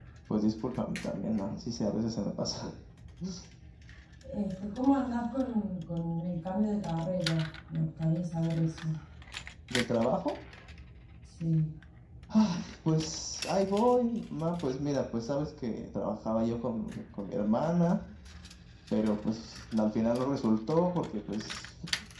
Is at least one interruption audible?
No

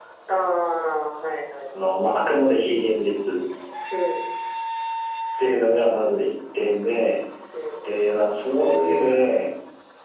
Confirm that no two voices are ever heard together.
Yes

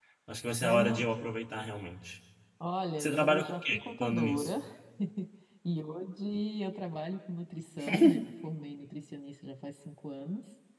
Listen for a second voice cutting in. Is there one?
Yes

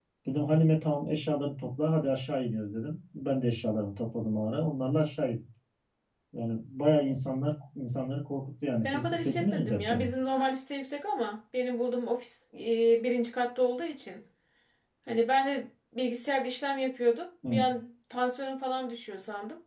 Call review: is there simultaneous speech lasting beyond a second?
Yes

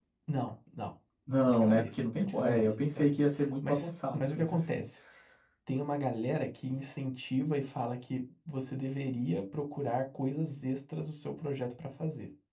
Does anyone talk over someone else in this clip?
Yes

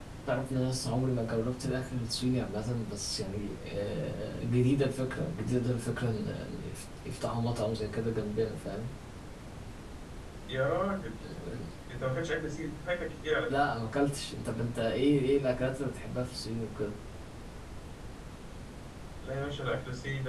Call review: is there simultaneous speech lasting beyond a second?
No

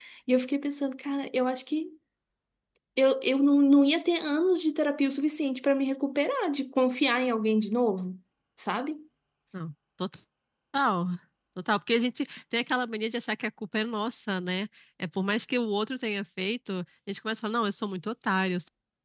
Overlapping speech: No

